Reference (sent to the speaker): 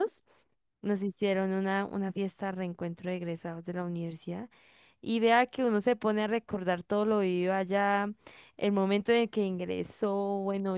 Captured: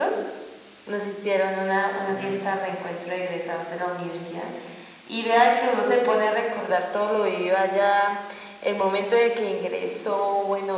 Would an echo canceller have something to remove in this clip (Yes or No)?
Yes